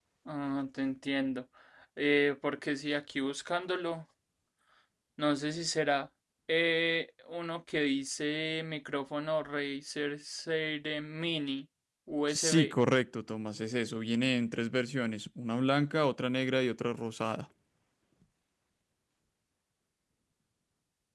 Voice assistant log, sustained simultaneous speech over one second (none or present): none